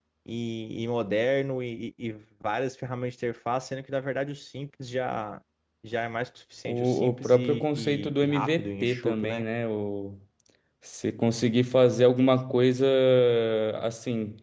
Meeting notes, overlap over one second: present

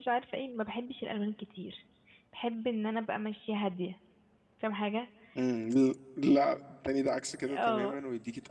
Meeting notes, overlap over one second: none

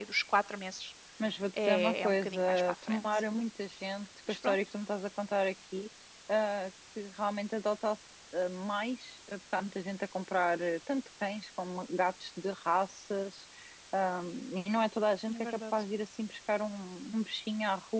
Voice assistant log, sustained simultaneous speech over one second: present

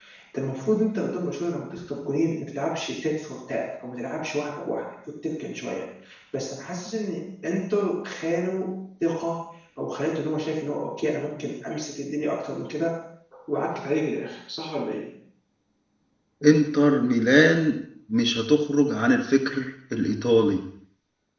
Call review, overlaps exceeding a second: none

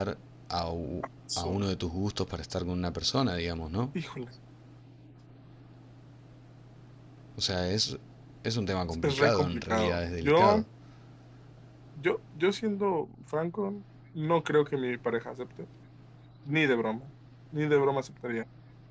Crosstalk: present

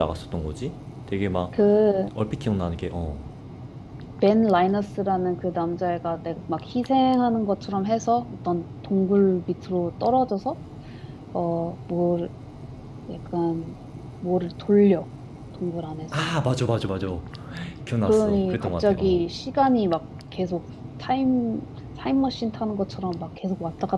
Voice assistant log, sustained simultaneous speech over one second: present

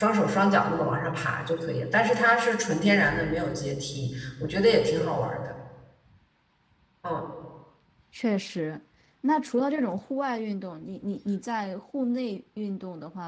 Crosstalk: none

